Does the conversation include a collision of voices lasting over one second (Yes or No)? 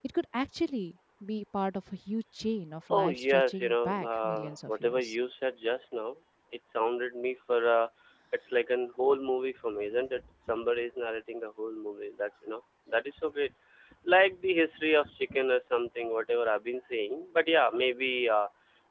Yes